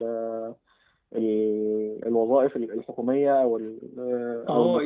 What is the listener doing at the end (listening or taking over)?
taking over